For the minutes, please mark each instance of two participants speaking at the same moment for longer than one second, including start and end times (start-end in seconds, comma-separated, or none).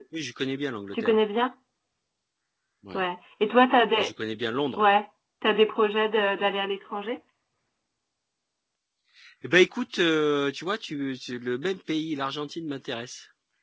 none